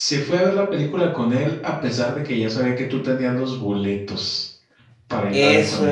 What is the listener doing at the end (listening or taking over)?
taking over